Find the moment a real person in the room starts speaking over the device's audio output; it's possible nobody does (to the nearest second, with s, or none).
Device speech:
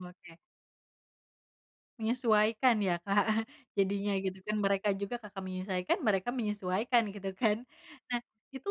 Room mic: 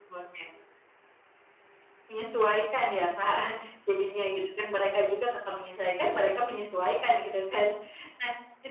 none